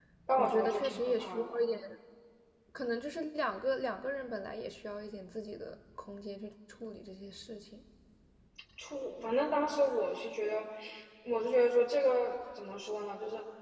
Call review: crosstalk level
present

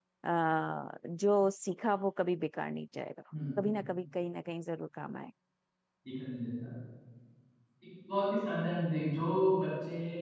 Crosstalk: none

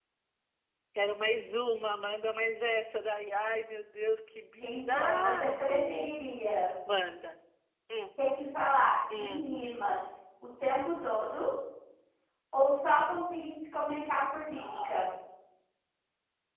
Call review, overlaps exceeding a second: present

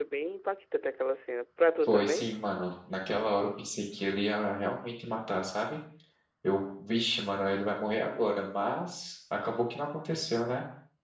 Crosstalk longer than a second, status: none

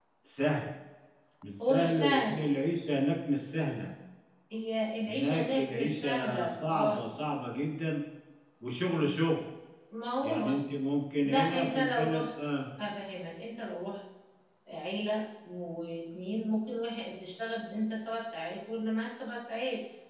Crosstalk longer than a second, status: present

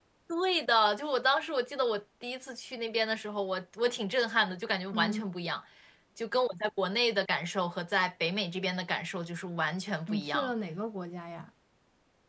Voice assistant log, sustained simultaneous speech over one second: none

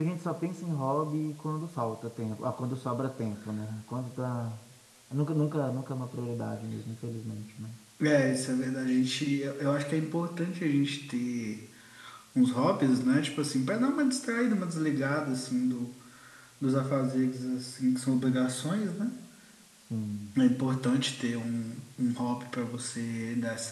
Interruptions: none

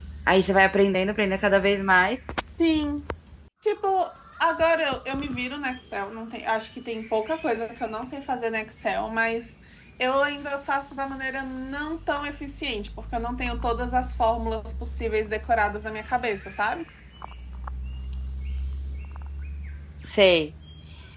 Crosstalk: none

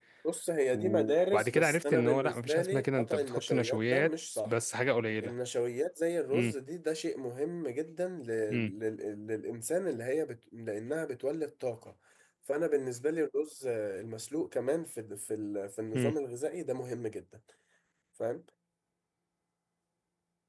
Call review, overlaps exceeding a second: present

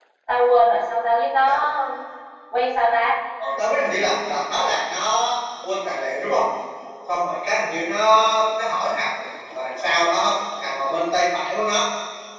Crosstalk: none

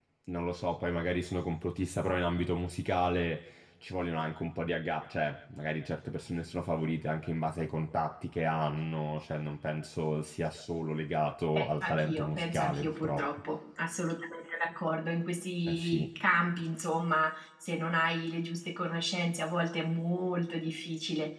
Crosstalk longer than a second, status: present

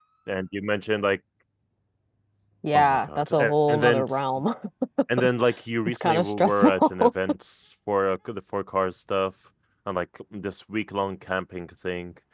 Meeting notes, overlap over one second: present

